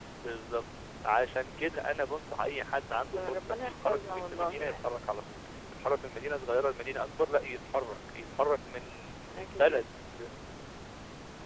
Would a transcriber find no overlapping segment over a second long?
No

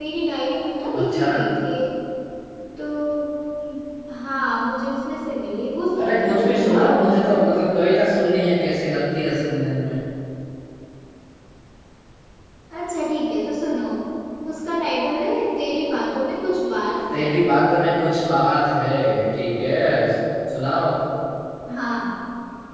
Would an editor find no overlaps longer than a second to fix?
No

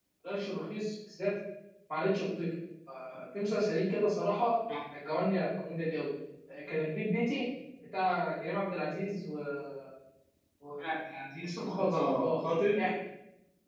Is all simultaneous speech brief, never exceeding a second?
No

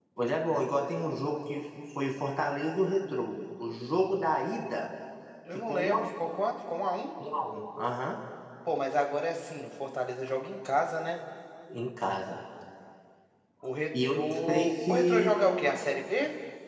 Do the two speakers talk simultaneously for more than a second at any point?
Yes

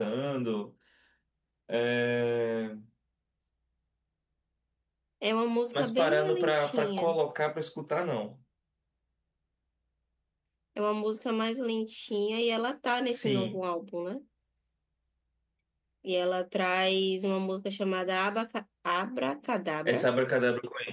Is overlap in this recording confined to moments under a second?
No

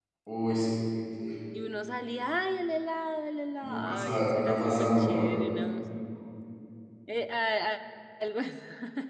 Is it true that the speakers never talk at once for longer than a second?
No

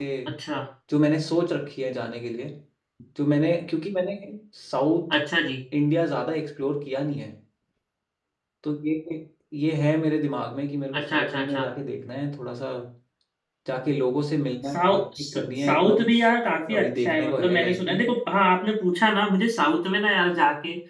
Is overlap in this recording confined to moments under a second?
No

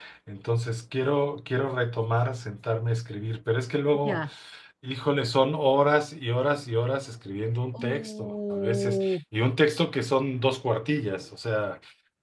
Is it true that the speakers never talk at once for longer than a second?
No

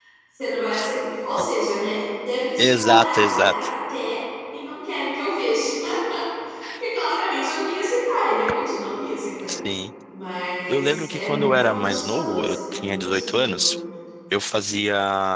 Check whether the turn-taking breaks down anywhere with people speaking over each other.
Yes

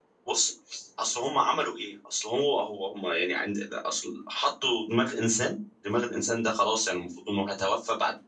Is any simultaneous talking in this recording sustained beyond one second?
No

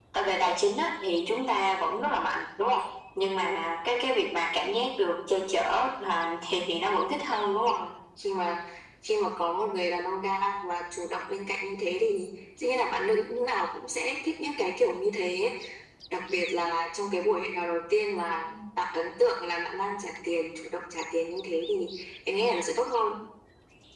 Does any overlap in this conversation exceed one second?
No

